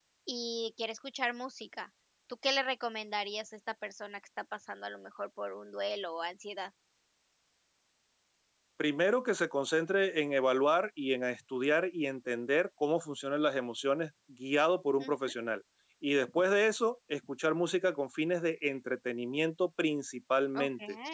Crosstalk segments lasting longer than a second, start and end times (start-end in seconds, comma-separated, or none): none